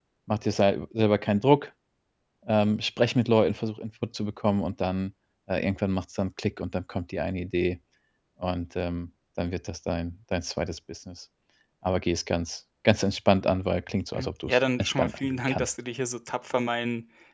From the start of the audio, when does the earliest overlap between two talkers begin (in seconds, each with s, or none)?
14.1 s